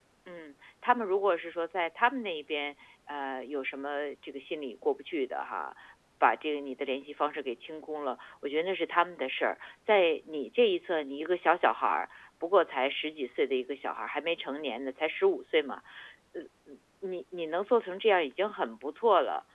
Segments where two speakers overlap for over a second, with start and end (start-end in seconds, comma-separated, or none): none